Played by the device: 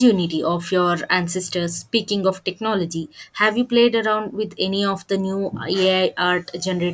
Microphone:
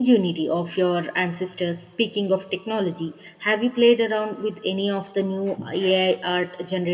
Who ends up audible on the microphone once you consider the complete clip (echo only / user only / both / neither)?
echo only